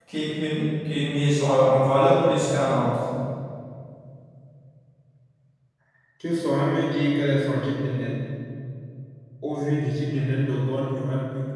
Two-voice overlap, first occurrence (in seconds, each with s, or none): none